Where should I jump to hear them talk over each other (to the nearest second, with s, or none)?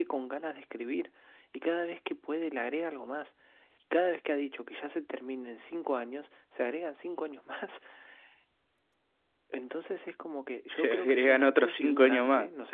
11 s